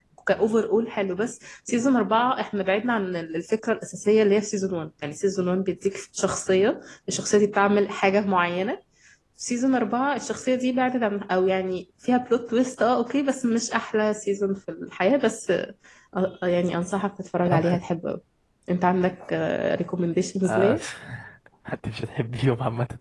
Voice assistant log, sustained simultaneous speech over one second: none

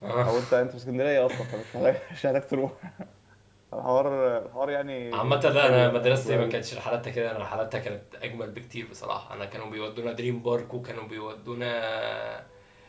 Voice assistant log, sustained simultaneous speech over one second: present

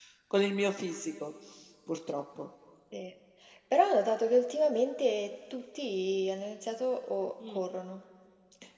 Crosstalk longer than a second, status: none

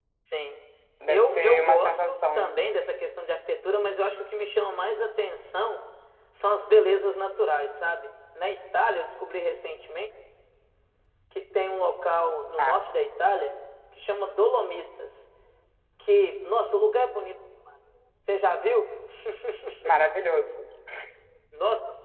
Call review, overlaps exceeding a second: present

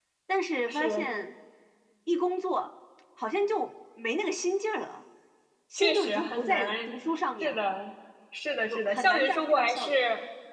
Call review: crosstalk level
present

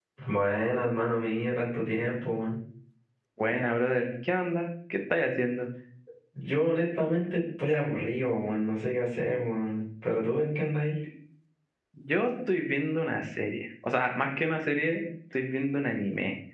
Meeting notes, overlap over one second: none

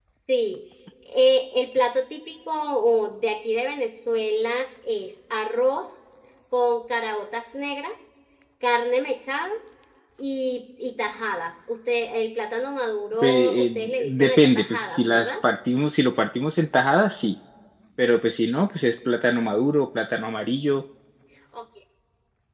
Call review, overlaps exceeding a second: present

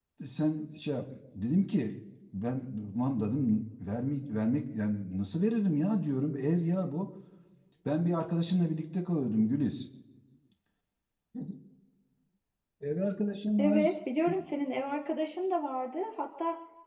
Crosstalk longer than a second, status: none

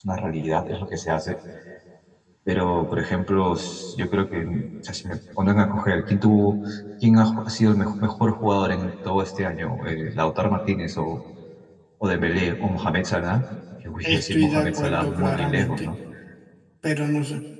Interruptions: present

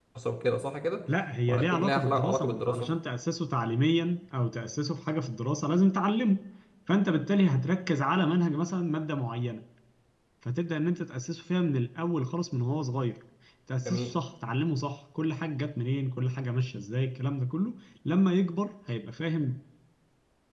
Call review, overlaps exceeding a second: present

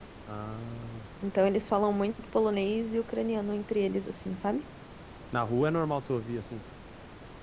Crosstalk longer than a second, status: none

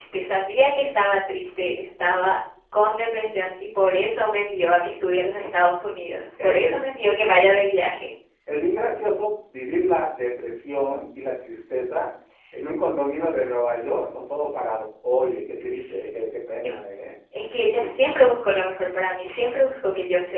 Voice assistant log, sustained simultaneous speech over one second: none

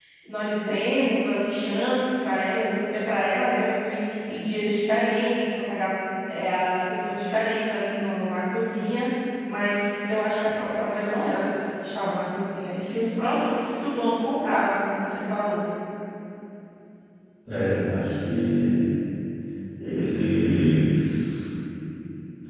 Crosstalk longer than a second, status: none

